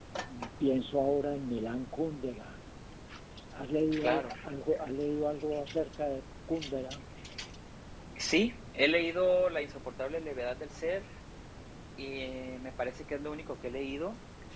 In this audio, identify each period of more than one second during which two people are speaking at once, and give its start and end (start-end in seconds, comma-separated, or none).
none